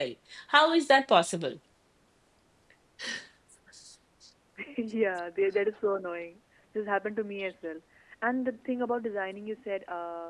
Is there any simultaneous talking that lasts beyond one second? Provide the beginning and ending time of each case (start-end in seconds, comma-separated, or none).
none